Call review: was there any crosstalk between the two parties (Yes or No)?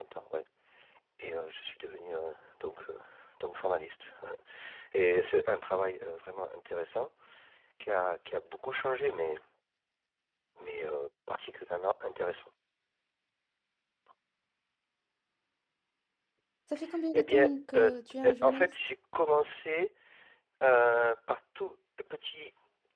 Yes